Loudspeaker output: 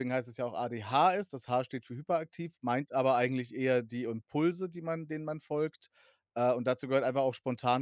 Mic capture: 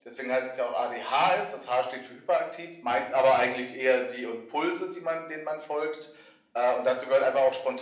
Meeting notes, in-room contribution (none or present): none